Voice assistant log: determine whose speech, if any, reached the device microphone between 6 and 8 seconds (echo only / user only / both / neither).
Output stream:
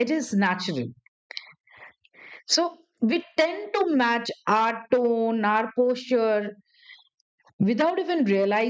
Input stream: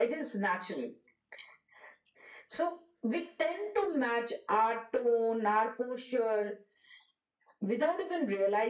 echo only